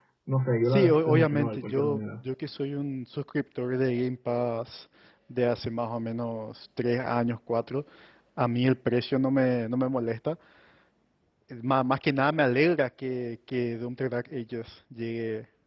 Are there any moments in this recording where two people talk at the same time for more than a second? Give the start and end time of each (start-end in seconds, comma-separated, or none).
0.7-2.0